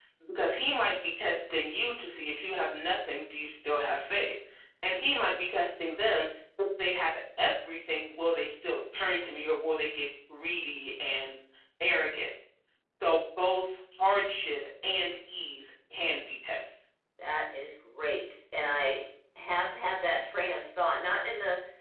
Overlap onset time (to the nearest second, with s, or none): none